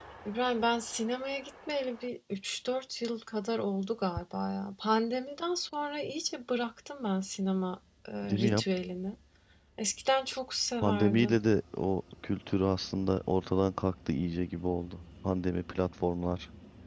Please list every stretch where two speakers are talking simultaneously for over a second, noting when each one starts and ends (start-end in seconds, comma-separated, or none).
none